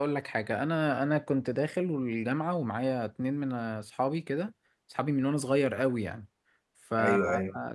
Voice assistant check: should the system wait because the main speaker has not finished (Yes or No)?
Yes